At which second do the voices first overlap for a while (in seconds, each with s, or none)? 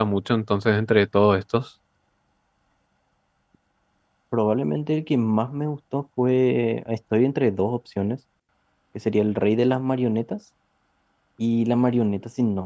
none